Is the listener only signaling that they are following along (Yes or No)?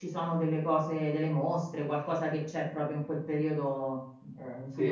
No